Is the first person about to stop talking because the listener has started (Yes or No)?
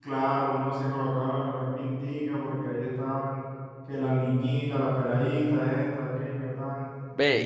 Yes